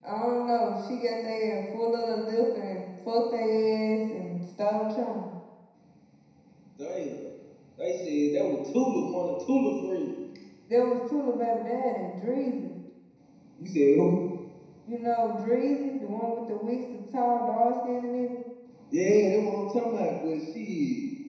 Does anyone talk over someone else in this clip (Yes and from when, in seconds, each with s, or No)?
No